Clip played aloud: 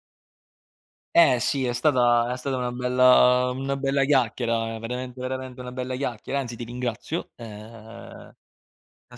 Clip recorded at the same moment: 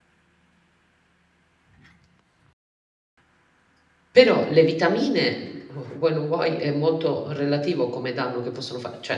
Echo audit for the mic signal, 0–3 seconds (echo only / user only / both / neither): neither